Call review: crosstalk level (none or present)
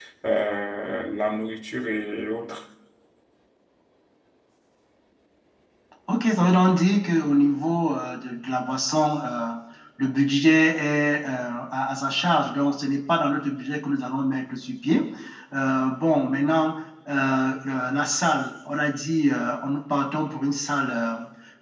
none